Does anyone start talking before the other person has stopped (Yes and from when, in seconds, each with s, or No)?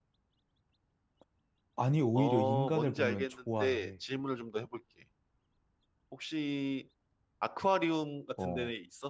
Yes, from 2.2 s